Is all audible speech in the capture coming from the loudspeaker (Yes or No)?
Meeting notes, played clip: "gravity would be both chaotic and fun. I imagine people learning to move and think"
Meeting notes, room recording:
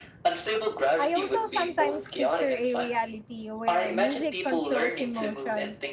No